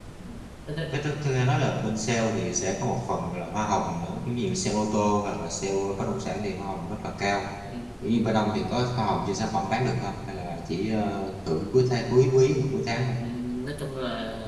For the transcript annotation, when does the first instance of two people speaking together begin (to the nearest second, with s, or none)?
none